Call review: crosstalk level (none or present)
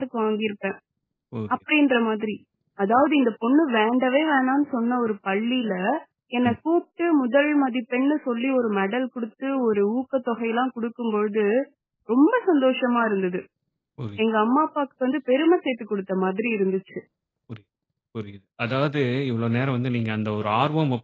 none